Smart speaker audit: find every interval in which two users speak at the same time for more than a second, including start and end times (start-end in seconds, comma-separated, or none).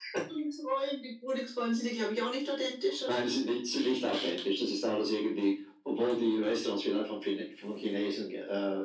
none